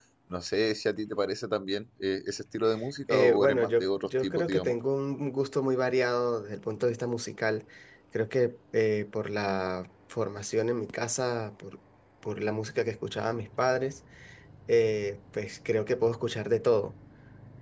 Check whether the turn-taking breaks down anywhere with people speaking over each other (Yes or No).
Yes